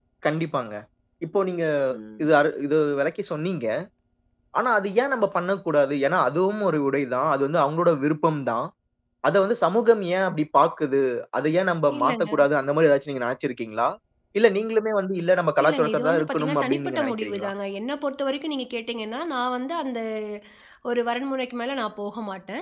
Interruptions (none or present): present